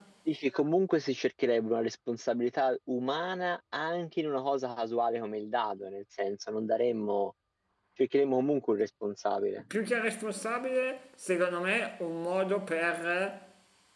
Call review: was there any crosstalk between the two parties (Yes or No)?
No